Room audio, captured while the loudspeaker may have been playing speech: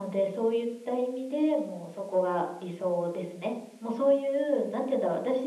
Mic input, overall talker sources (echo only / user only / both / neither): echo only